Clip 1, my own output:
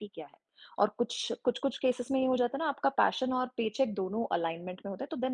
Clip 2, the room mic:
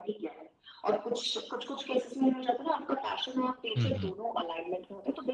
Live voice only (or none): हुँ, हुँ।